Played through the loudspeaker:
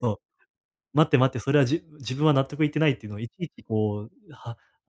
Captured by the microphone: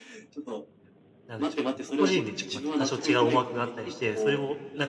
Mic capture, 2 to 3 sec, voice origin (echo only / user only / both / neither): both